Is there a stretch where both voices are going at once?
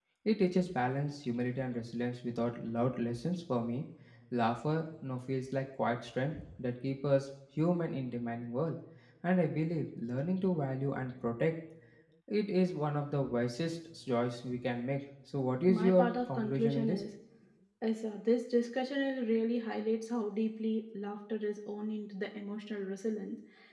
Yes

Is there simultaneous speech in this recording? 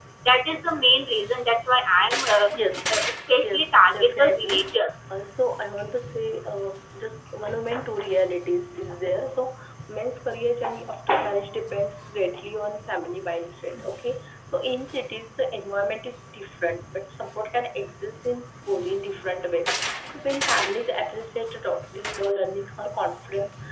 Yes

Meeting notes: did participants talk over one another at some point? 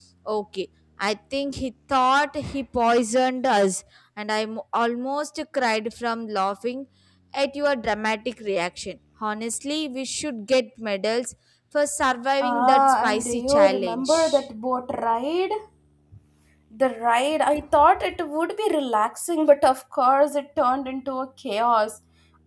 Yes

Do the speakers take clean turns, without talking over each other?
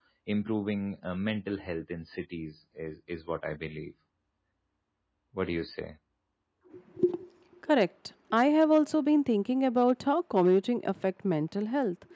Yes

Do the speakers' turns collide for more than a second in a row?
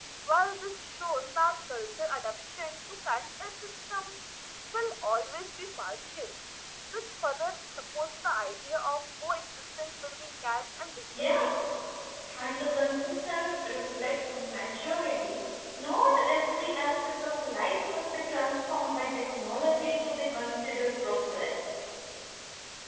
No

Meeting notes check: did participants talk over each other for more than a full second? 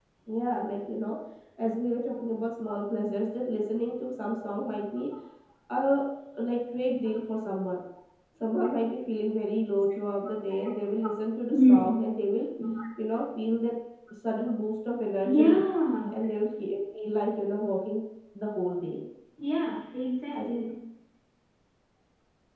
No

